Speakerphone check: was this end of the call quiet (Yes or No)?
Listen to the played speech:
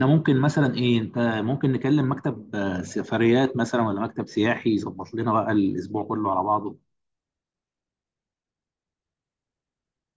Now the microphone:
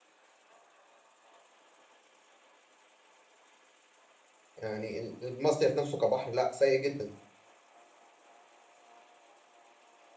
No